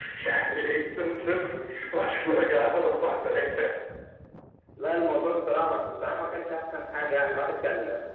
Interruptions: none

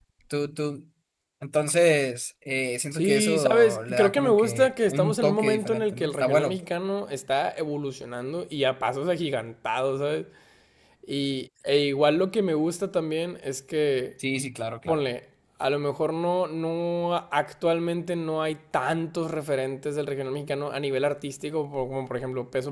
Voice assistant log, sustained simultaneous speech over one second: present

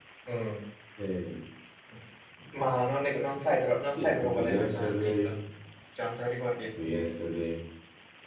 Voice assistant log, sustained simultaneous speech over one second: present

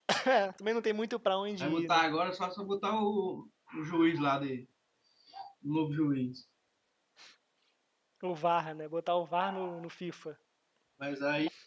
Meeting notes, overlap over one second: none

